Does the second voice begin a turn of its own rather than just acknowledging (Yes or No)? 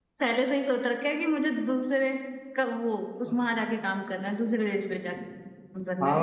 Yes